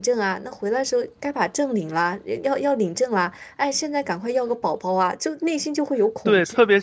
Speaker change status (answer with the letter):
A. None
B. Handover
B